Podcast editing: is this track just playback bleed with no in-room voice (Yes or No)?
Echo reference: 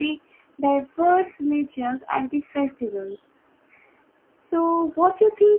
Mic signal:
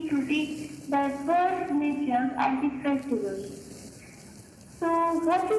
Yes